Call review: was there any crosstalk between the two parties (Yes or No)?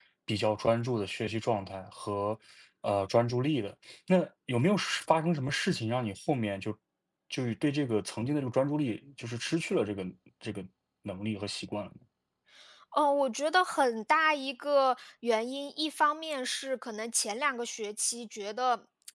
No